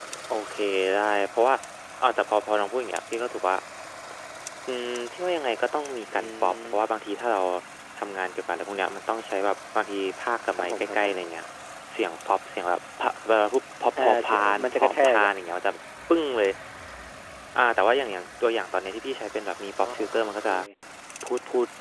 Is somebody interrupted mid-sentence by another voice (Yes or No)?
Yes